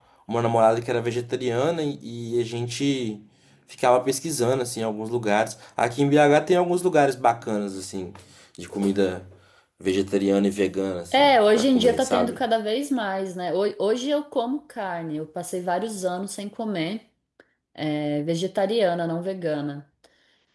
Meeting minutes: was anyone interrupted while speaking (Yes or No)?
Yes